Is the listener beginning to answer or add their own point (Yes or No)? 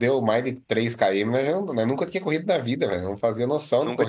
Yes